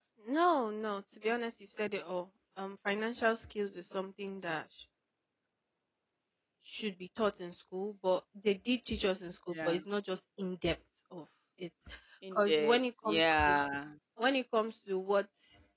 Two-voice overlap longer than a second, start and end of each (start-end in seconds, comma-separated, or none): 12.3-13.6